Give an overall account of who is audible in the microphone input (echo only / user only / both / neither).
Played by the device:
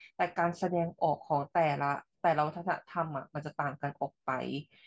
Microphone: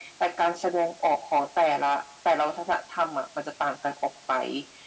echo only